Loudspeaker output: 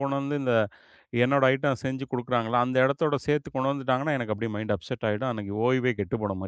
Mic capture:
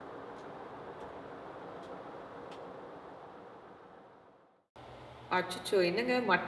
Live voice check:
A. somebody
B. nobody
A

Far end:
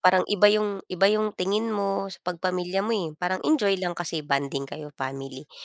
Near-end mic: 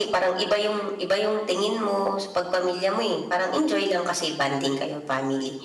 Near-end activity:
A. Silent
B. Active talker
A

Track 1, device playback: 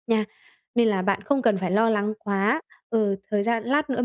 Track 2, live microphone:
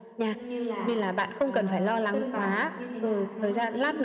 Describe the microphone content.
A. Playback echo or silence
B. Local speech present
B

